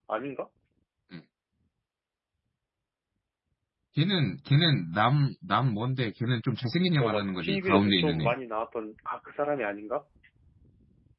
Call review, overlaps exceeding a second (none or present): present